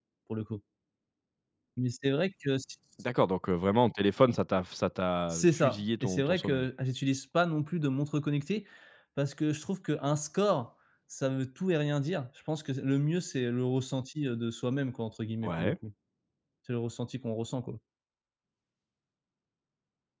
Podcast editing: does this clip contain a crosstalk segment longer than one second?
Yes, from 5.3 s

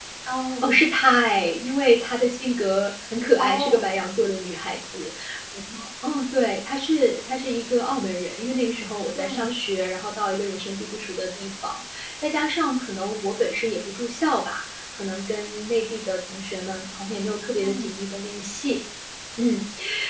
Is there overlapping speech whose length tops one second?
No

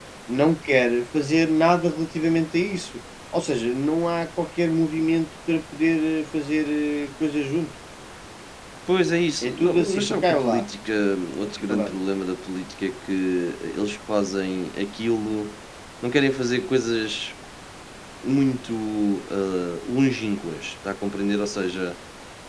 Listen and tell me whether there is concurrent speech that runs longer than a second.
Yes, from 9.4 s

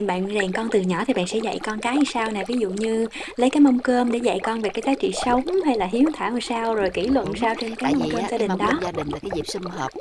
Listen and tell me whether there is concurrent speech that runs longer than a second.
Yes, from 7.2 s

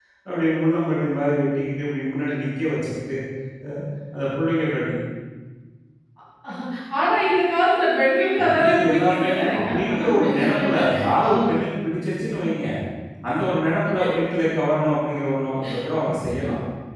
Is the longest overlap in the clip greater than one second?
Yes, from 8.4 s

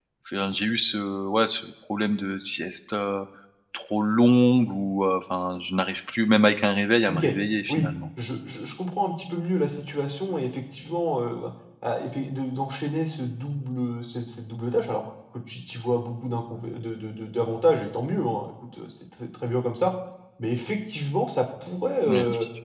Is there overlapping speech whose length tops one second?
No

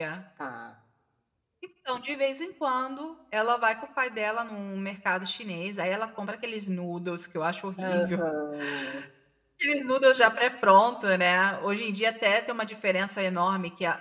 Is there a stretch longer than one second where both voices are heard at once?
No

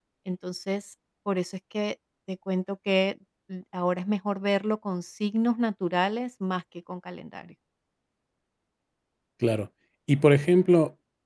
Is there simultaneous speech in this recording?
No

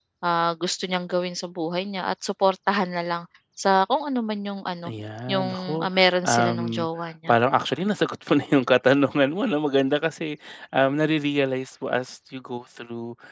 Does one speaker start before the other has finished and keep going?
Yes, from 5.3 s

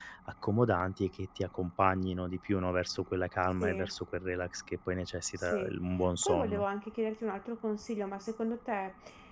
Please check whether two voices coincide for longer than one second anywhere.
No

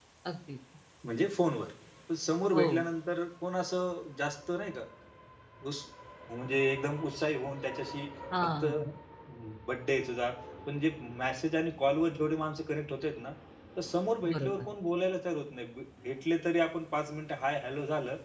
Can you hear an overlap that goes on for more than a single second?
No

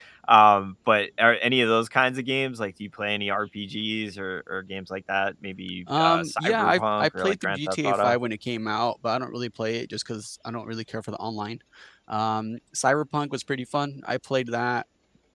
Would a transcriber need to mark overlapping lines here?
Yes, from 5.9 s

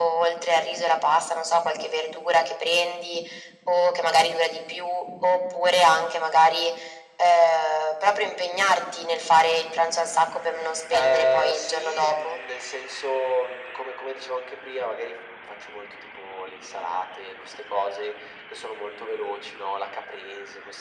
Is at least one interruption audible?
Yes, from 10.9 s

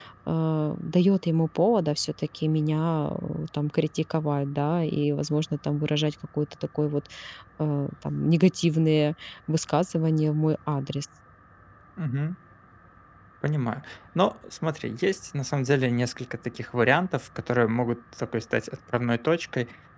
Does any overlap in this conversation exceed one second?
No

